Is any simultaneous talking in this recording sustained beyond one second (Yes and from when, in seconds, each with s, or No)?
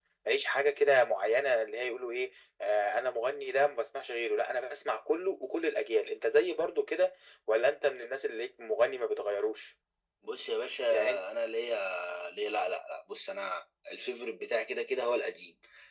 No